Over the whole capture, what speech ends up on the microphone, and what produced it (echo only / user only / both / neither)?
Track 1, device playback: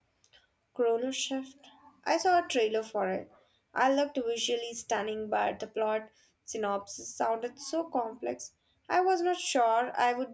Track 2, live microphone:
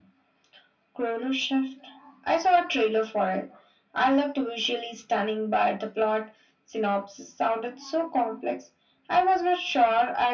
echo only